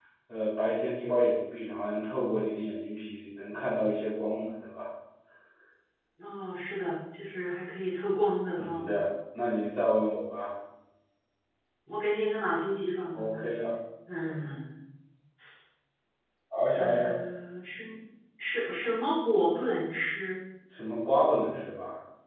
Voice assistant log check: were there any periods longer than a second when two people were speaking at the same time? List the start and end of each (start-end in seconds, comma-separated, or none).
none